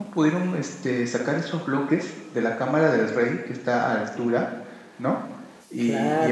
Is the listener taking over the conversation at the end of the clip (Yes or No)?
No